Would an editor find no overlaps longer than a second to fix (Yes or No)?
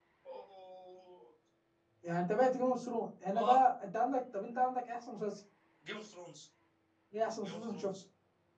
Yes